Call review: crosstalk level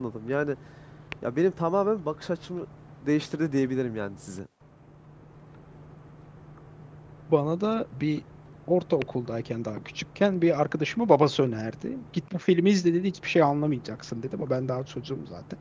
none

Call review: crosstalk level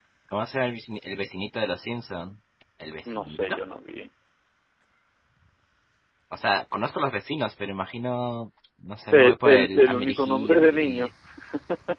present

